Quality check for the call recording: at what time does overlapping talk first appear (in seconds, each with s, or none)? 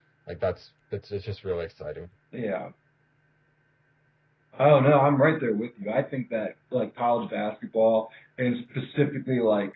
none